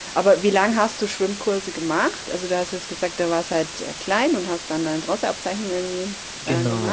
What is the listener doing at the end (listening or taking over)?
taking over